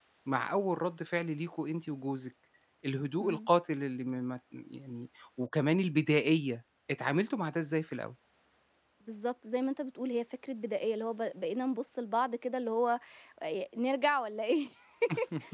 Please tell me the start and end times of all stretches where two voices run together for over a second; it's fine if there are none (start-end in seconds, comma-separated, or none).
none